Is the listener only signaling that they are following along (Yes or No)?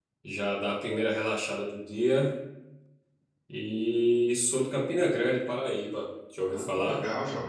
No